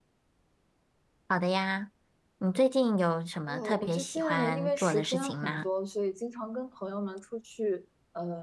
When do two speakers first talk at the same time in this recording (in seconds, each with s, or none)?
3.5 s